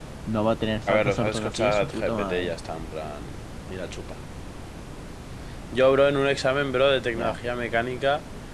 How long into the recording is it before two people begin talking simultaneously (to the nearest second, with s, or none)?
1 s